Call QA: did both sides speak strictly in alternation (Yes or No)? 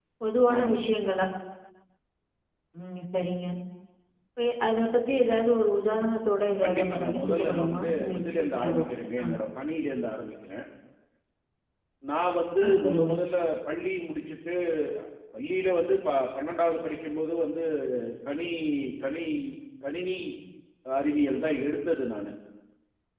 No